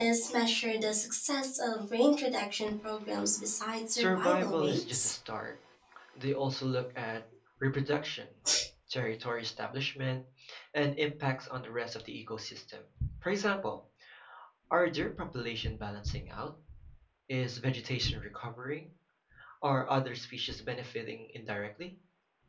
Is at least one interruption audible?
Yes, from 3.9 s

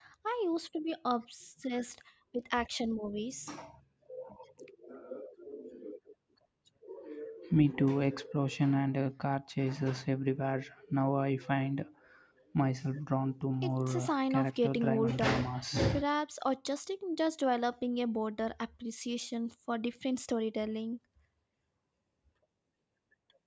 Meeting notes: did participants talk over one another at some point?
Yes, from 13.6 s

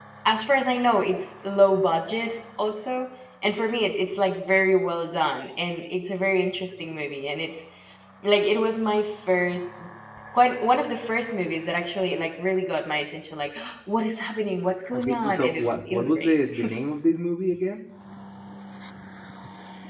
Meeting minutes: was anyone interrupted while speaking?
Yes, from 14.9 s

